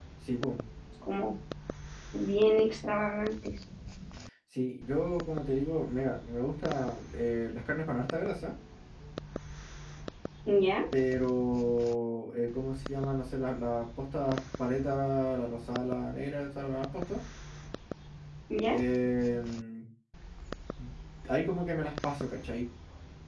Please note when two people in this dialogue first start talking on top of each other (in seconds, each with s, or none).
none